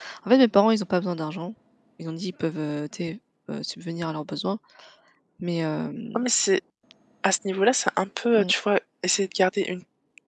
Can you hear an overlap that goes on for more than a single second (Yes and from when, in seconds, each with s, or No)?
No